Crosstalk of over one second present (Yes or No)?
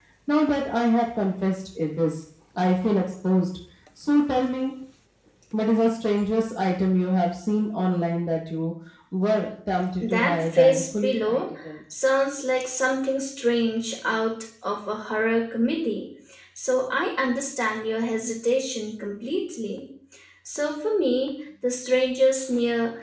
Yes